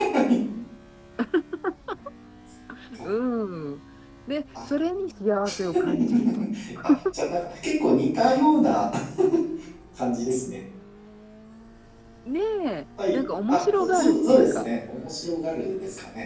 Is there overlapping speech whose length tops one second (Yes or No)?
Yes